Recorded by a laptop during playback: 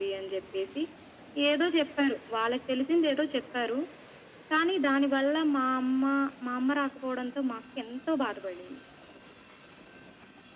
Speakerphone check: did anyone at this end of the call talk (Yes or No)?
No